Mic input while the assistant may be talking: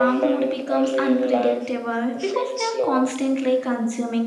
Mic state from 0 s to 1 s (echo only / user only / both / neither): both